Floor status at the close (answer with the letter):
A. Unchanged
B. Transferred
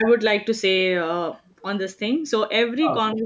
A